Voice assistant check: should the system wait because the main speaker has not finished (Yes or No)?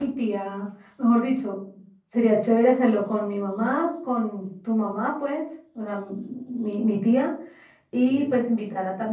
Yes